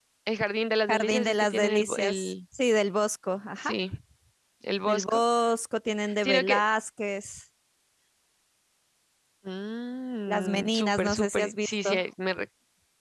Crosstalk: present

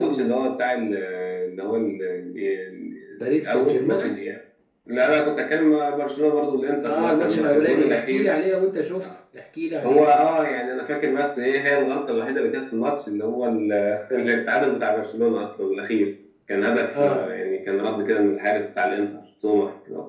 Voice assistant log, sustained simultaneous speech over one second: present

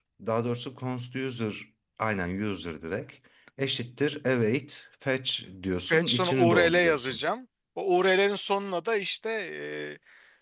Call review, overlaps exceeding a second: present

